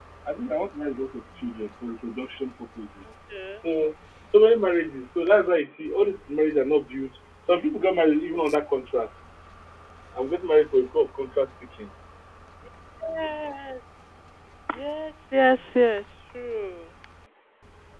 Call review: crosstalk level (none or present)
none